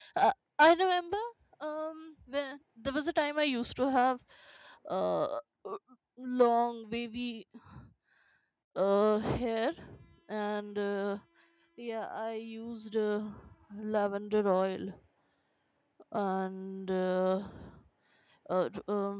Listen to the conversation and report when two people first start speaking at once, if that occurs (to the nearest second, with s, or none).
none